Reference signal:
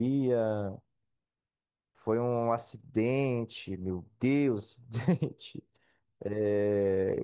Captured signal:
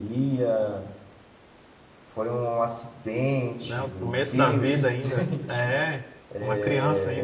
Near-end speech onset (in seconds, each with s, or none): 3.6 s